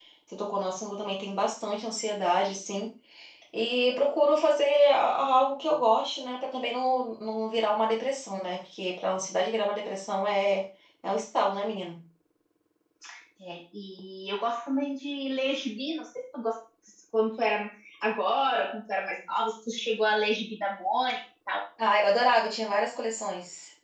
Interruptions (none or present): none